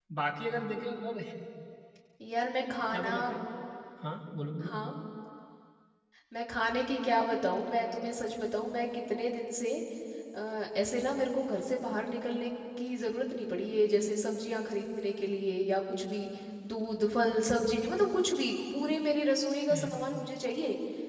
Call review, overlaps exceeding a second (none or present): none